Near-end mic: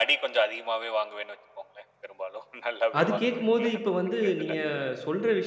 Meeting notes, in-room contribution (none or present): present